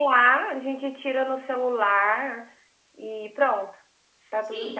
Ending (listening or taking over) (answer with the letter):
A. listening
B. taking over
B